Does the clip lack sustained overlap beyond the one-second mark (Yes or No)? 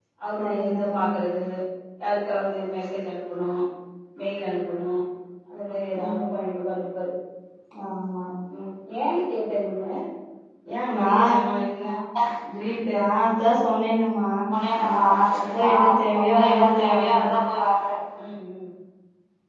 No